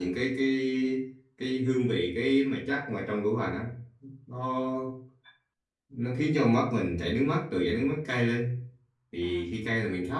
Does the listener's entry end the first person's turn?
No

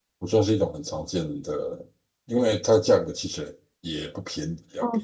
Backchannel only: No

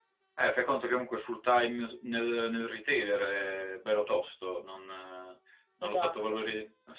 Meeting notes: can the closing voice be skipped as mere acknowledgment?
Yes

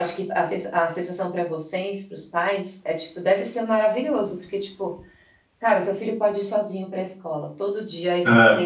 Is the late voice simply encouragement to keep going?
Yes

